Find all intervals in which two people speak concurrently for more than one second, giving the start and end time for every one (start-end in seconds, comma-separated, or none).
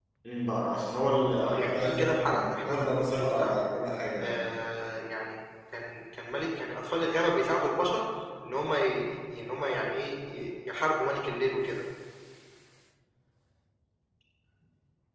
1.4-3.5